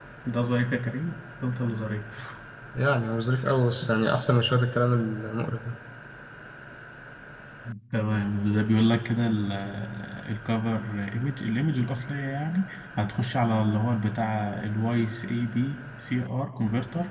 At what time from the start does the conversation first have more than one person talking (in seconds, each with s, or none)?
none